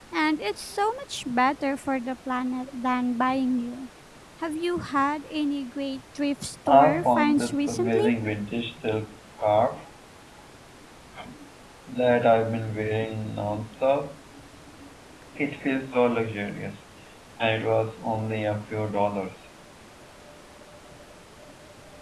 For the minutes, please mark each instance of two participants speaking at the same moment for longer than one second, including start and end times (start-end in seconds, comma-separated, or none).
6.7-8.1